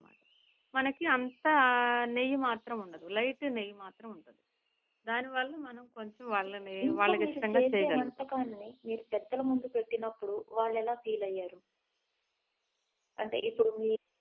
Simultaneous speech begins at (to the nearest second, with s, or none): 7 s